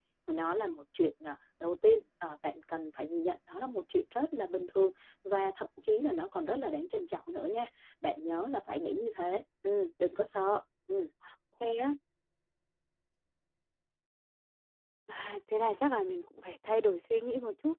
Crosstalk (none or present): none